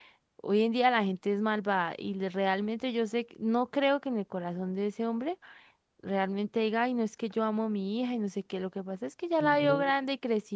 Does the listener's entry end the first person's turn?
No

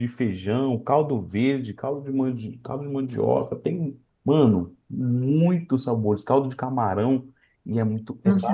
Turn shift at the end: Yes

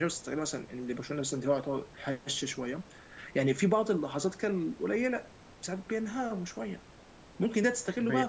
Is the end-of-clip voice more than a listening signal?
No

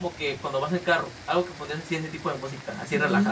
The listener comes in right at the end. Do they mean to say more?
Yes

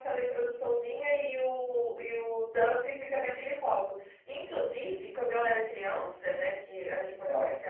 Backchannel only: Yes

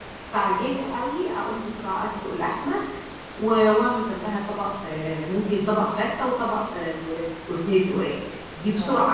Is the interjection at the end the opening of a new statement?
No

